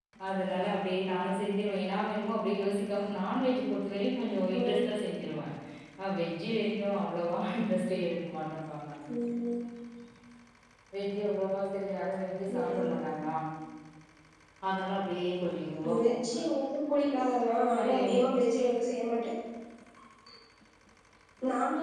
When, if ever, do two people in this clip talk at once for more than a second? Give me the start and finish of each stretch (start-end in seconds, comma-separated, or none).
none